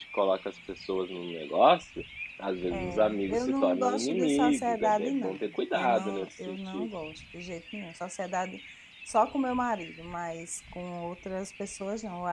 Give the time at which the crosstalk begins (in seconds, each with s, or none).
2.7 s